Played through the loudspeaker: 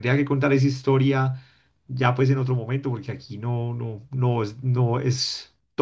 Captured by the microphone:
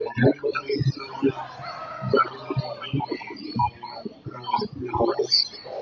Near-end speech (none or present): none